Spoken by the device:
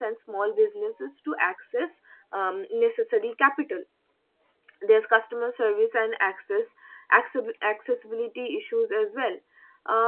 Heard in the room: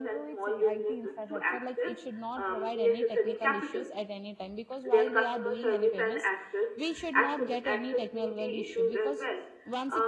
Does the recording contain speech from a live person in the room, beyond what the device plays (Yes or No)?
Yes